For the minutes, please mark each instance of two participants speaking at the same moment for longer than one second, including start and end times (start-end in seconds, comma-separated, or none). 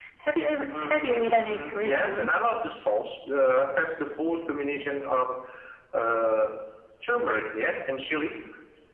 0.8-2.3